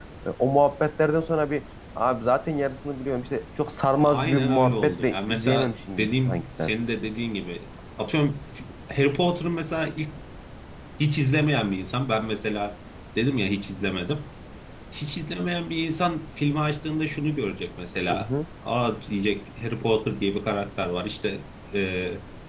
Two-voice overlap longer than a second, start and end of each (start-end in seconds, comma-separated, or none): 4.0-6.7